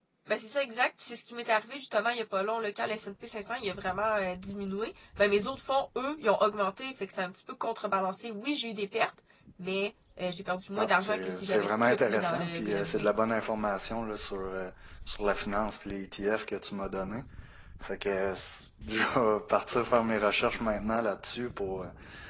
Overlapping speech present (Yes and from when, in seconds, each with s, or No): Yes, from 10.8 s